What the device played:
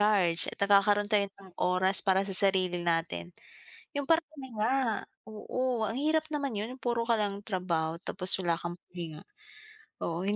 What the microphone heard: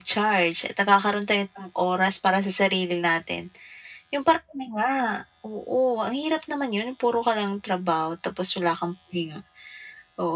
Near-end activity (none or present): none